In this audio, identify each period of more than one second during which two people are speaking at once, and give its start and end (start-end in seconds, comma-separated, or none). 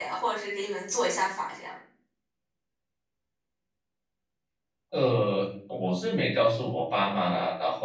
none